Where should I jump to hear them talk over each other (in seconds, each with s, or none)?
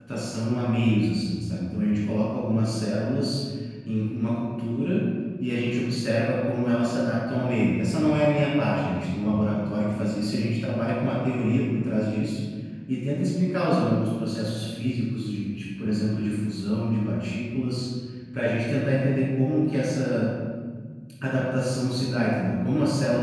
none